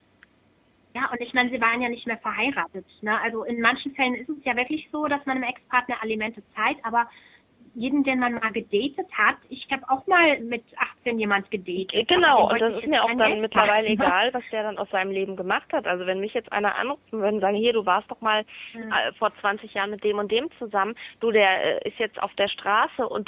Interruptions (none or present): present